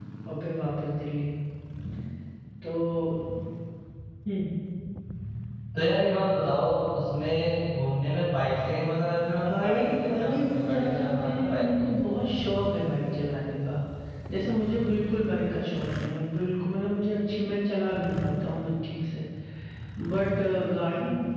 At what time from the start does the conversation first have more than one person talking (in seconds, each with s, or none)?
9.3 s